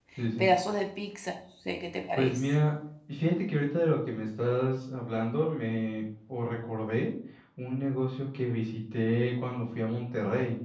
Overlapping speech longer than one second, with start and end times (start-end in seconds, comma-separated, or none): none